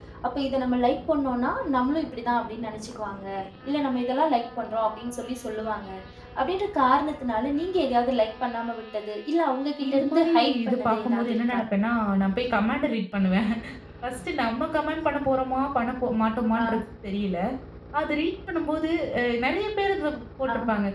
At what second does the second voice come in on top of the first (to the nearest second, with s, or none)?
10 s